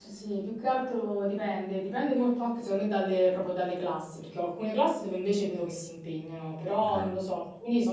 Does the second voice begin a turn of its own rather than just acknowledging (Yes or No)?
No